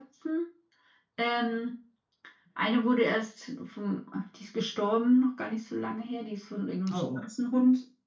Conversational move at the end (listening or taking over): listening